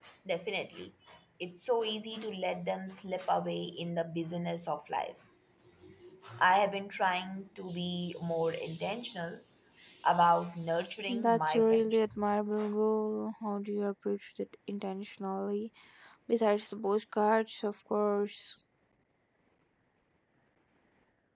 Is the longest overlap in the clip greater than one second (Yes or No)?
Yes